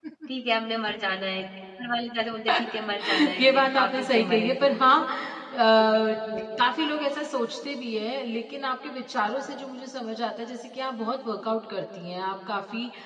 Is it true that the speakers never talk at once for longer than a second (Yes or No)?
No